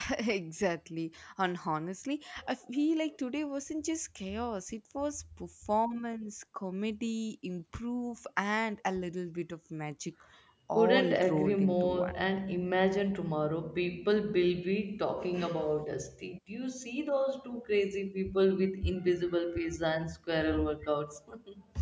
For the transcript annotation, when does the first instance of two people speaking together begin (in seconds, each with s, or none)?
10.7 s